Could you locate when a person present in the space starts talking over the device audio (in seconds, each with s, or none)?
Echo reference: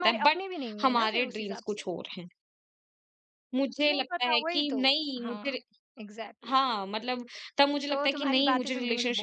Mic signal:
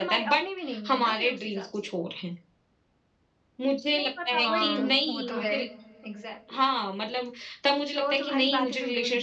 4.4 s